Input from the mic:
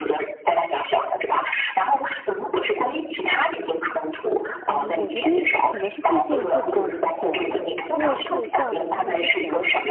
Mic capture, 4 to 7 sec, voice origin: both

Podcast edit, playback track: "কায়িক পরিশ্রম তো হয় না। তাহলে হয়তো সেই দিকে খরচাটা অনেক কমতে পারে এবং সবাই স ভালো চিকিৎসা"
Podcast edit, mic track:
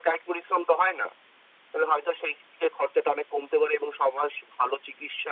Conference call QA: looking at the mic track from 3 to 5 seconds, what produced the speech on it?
echo only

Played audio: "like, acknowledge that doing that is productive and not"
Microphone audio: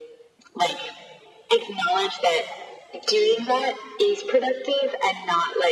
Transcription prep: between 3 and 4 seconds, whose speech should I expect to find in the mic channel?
echo only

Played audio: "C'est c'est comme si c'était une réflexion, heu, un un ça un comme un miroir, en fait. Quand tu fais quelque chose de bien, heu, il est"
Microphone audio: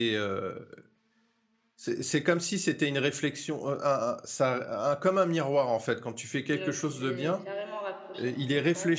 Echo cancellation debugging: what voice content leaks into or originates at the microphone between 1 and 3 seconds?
echo only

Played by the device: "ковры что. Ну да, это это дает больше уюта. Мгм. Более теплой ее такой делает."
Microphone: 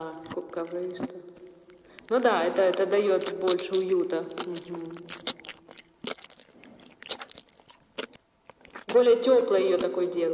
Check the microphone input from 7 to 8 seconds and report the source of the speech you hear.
neither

